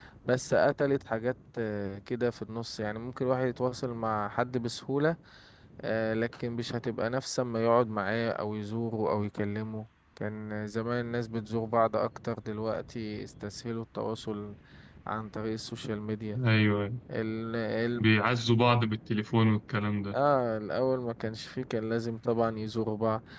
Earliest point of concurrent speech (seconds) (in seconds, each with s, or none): none